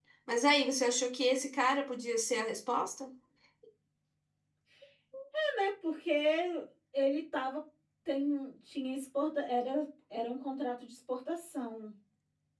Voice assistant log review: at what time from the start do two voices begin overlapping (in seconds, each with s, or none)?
none